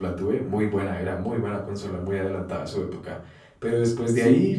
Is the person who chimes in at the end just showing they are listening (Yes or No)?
Yes